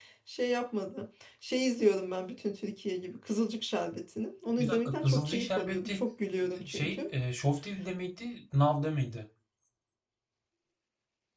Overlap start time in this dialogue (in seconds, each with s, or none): 4.6 s